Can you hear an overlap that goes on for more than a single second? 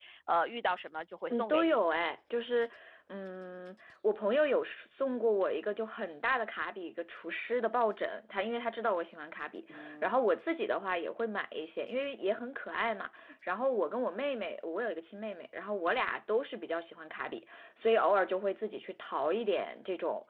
No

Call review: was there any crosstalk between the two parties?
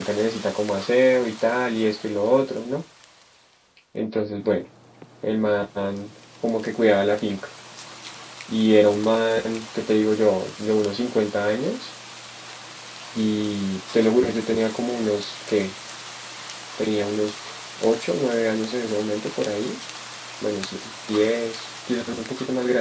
No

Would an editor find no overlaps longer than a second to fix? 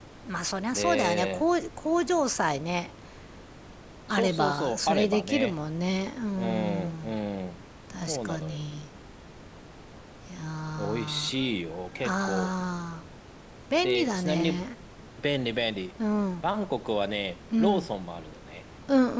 No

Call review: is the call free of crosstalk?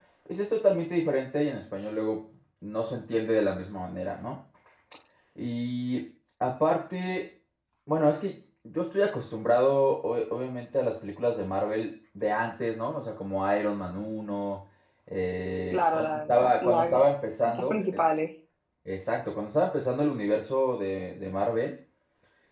No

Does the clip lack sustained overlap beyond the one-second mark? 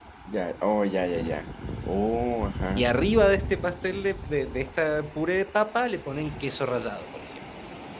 Yes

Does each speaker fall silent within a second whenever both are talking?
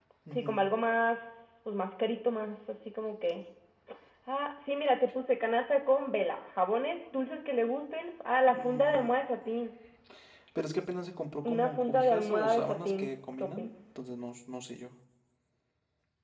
No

